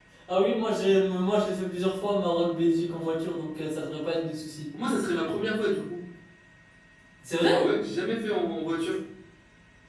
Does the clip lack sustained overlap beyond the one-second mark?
Yes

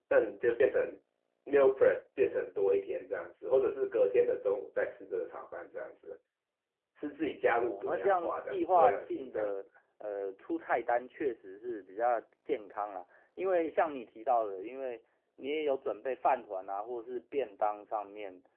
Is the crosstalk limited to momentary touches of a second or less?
No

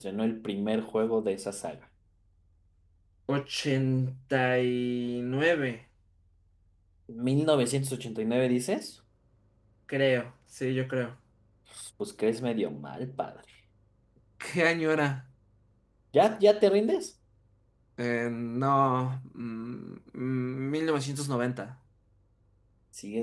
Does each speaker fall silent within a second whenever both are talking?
Yes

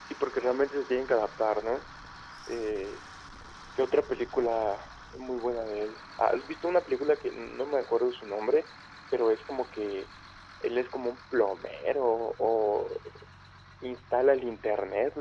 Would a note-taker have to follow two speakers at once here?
No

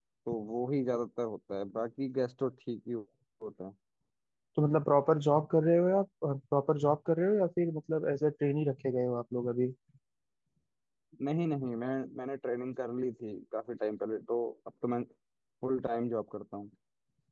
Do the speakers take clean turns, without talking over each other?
Yes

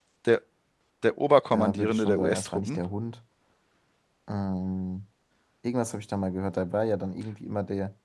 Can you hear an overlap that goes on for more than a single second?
Yes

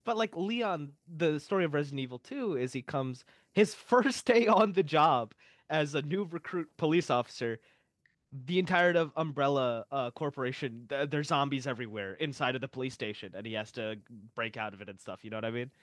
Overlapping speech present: No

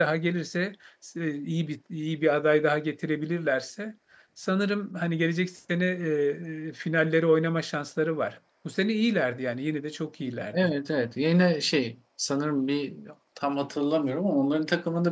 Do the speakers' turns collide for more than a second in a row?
No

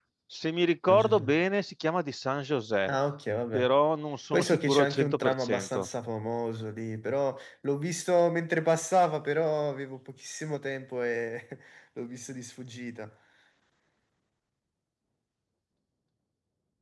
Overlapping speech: Yes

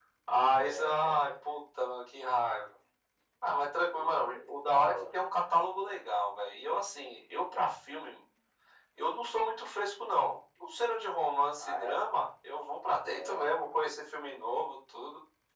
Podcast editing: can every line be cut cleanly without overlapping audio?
No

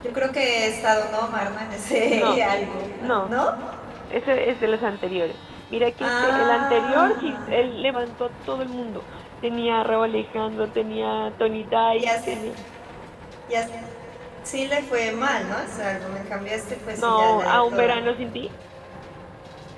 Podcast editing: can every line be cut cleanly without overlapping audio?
No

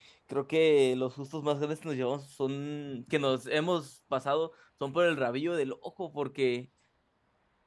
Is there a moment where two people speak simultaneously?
No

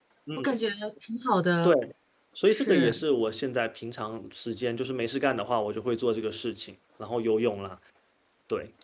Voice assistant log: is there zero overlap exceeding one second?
Yes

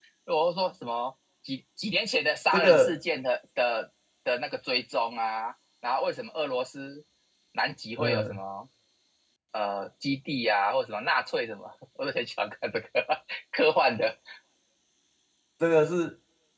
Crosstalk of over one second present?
No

